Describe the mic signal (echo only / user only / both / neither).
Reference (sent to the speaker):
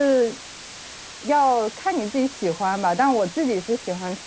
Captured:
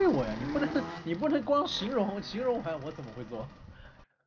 user only